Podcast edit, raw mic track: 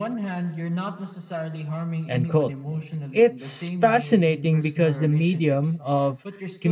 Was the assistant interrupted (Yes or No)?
Yes